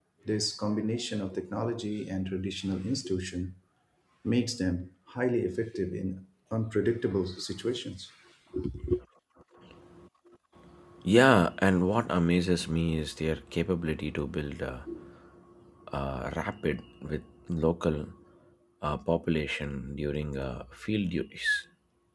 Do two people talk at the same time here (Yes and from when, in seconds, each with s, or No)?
No